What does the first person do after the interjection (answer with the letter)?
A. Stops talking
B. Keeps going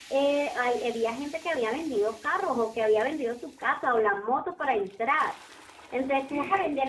B